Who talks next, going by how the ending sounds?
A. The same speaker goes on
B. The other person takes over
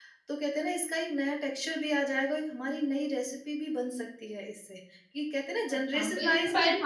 B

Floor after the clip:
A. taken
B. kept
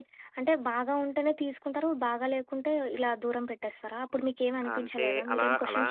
A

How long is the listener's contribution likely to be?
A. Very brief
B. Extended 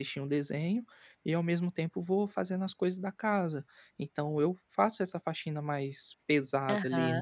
B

